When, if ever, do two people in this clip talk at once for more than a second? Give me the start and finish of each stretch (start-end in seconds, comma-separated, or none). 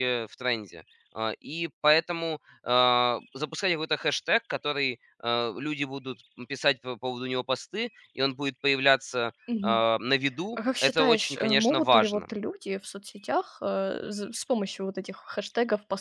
10.8-12.2